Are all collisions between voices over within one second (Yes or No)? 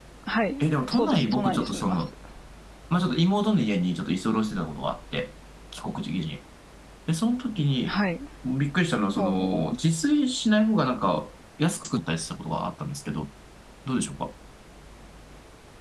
No